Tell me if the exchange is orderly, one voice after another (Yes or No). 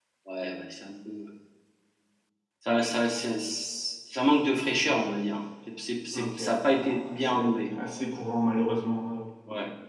No